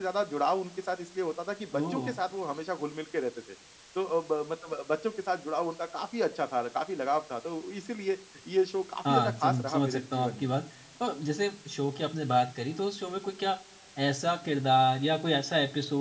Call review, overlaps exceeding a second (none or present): present